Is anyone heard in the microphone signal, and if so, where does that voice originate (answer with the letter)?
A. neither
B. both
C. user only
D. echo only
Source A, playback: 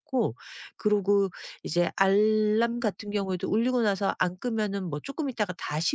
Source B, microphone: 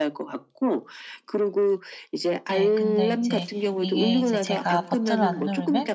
B